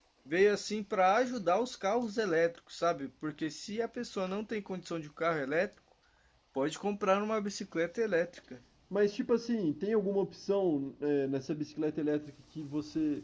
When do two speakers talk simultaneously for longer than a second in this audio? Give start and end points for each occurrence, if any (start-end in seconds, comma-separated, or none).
none